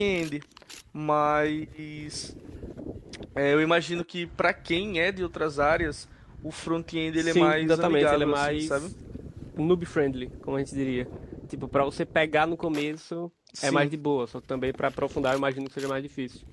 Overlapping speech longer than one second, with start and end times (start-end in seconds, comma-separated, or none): 7.2-8.9